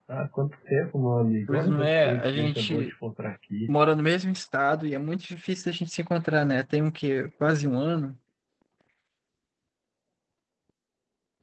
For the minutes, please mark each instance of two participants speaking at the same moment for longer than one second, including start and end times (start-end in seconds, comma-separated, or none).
1.5-2.9